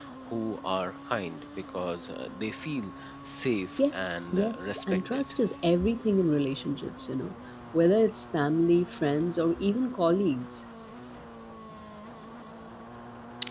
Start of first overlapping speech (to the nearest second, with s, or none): 4 s